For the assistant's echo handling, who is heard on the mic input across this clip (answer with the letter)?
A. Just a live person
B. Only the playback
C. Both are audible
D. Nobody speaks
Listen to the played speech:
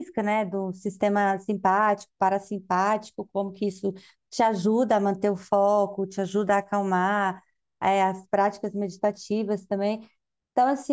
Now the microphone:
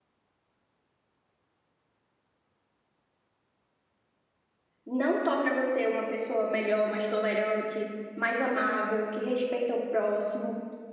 A